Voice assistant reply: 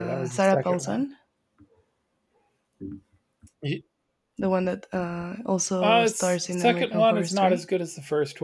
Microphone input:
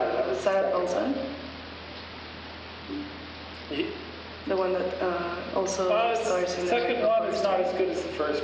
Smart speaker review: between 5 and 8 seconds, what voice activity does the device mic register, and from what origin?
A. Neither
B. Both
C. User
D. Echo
D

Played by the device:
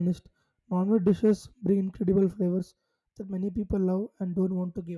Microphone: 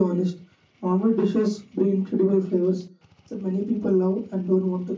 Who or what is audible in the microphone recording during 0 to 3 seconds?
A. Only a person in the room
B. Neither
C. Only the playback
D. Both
C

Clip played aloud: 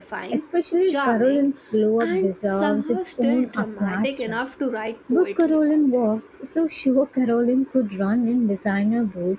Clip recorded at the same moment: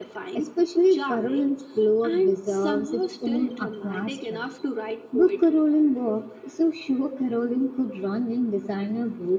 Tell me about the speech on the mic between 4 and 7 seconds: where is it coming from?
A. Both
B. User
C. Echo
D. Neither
C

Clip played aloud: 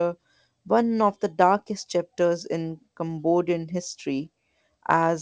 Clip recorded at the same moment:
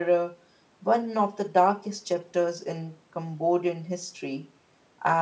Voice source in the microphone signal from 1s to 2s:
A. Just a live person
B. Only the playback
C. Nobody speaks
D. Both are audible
B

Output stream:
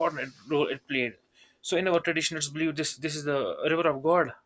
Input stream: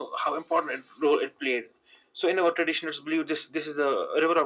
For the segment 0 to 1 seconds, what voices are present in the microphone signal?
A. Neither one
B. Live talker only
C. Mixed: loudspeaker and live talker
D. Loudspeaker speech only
D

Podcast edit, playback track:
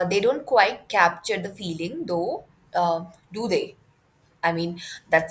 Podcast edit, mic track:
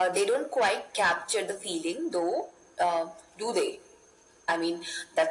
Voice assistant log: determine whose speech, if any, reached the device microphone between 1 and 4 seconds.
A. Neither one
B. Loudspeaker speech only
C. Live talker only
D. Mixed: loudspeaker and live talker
B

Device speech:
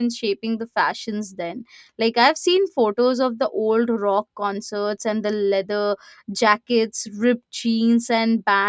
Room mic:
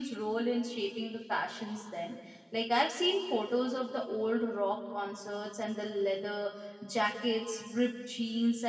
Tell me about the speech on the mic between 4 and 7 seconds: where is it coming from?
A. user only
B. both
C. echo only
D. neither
C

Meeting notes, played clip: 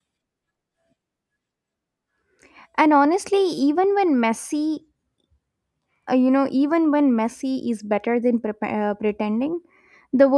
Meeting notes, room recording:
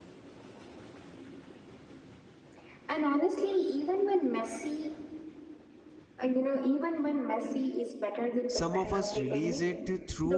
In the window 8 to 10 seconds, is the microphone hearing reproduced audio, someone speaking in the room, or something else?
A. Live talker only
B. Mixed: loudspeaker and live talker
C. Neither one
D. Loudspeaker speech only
B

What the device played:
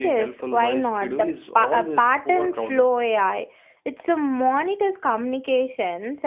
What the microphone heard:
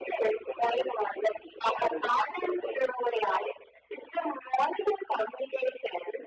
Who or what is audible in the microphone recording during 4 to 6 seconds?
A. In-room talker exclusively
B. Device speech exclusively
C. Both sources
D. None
B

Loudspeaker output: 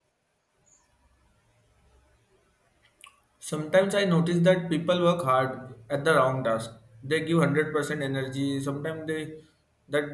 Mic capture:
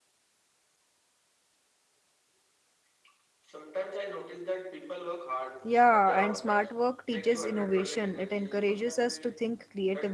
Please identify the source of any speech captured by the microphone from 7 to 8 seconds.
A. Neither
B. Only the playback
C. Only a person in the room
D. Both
D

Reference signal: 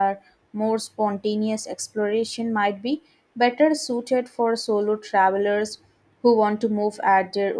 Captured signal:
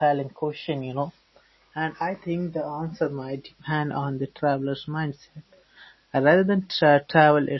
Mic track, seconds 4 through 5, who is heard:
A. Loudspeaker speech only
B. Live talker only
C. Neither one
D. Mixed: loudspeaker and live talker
B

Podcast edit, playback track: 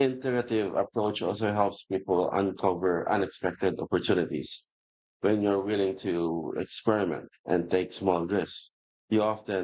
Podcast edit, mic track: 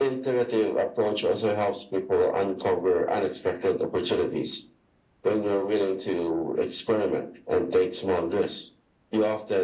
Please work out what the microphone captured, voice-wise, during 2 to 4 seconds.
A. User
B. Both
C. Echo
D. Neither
C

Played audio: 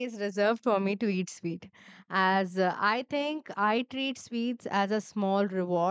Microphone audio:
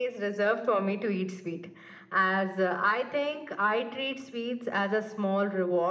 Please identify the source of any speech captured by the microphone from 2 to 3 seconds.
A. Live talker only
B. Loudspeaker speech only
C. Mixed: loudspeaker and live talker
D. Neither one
B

